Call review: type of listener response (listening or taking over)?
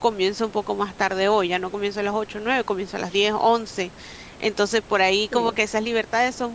listening